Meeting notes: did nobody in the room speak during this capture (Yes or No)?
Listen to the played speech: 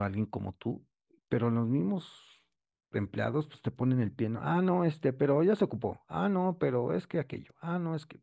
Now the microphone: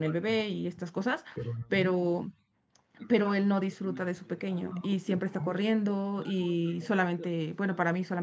No